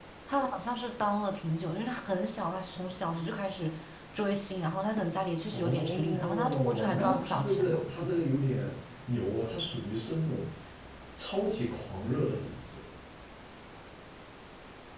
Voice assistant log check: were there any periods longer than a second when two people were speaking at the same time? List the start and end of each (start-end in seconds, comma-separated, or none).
5.5-8.2